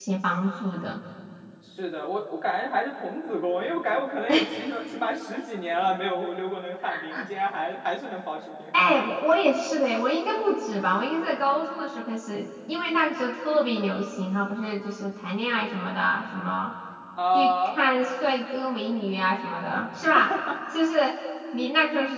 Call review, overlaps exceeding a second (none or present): none